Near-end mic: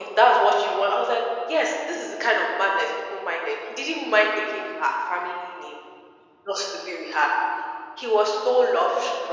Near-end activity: none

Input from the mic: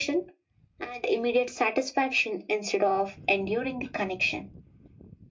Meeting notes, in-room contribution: none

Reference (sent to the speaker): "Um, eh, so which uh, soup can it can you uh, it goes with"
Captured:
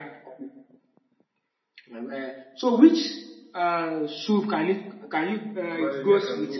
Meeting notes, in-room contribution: present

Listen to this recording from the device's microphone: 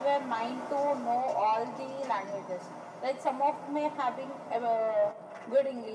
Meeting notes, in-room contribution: none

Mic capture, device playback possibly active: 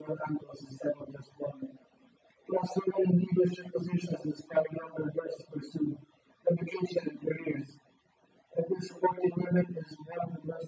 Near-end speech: none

